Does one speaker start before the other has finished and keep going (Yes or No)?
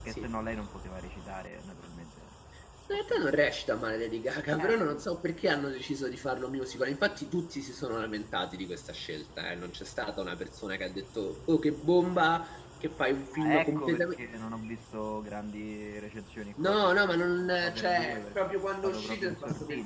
Yes